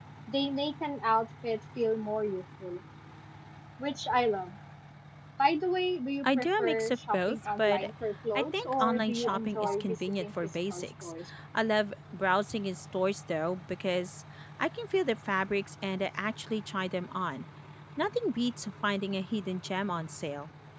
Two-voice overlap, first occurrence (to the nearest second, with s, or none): 6 s